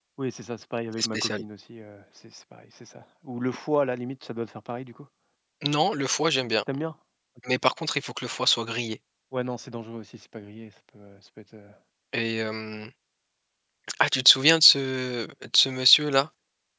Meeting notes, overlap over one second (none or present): none